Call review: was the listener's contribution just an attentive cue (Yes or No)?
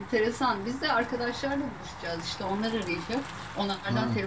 Yes